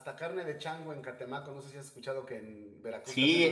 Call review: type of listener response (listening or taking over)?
taking over